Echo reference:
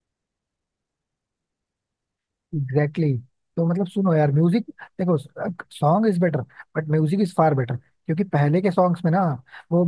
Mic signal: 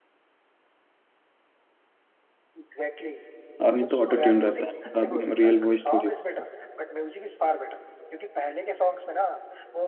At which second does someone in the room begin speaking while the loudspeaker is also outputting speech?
3.6 s

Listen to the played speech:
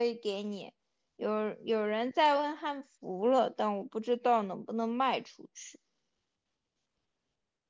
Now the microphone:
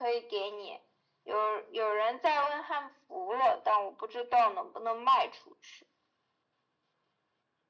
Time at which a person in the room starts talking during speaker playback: none

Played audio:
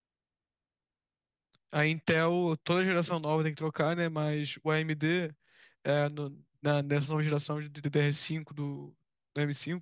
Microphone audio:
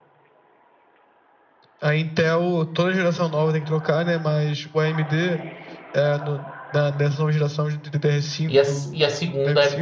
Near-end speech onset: 8.5 s

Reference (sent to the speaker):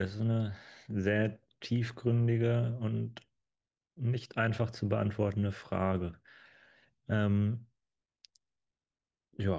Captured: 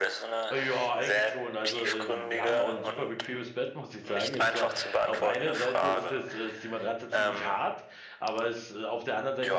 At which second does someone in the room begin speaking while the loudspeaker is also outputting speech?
0.5 s

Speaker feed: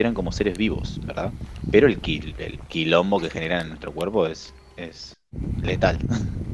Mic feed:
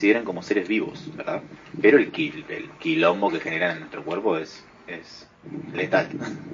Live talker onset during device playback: none

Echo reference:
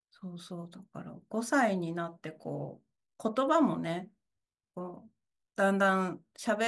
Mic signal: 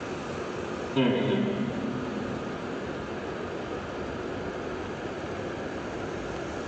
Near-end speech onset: 1.0 s

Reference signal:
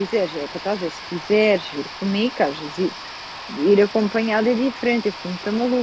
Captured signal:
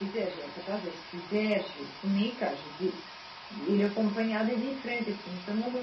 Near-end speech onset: none

